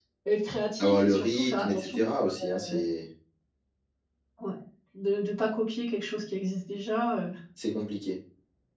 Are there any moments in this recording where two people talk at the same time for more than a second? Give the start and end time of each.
0.8-2.0

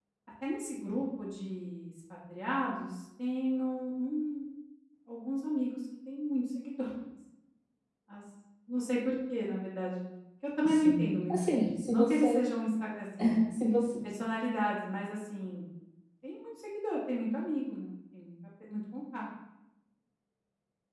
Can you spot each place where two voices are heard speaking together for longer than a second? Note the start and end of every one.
10.6-12.5

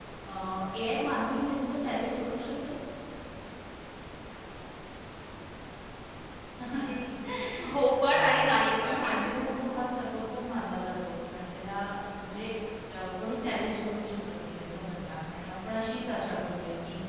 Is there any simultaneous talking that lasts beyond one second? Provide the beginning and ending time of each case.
7.7-9.0

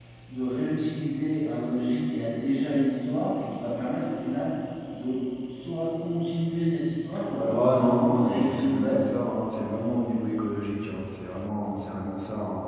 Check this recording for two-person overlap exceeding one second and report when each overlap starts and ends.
7.5-9.0

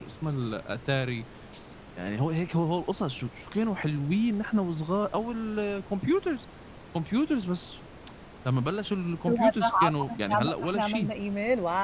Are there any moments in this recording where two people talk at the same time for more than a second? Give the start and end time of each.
9.3-11.1

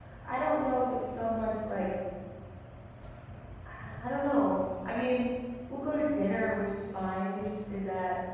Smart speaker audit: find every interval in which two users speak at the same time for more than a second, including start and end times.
none

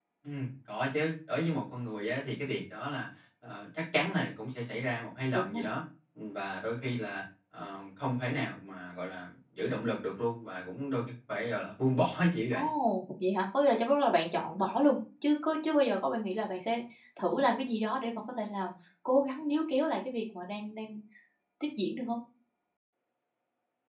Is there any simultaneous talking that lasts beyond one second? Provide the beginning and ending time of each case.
none

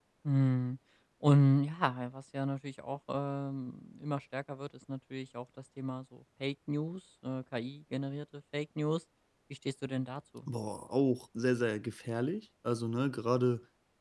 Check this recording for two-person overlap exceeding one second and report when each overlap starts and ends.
none

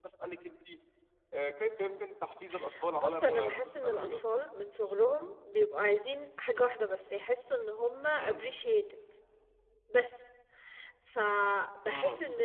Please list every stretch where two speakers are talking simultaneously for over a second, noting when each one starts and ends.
3.0-4.2

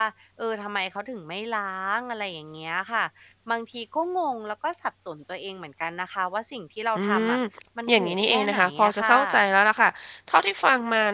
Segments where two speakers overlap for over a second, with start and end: 7.9-9.1

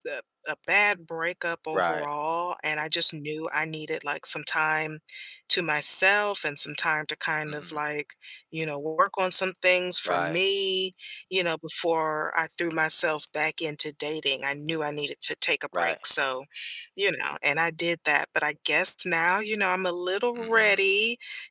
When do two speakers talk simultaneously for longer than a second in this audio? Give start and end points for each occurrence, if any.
none

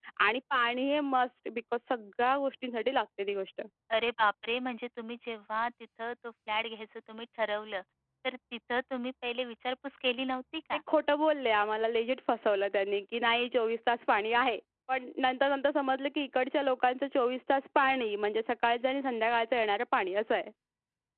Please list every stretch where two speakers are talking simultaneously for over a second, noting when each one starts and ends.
none

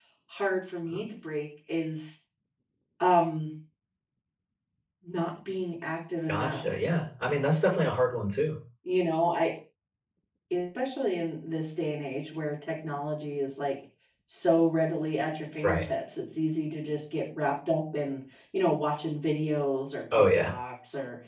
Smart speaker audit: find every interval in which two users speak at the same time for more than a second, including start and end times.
none

